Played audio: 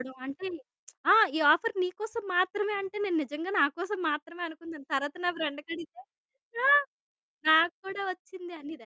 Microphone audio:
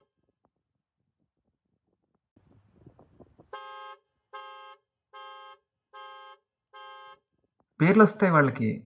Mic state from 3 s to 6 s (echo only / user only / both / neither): neither